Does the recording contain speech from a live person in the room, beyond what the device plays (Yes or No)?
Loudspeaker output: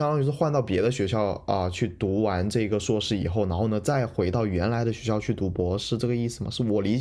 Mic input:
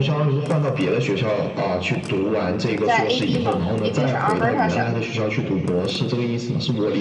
Yes